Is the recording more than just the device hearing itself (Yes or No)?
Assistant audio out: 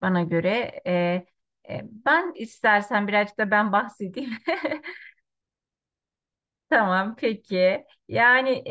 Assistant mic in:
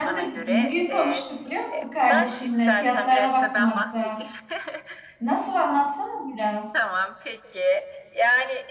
Yes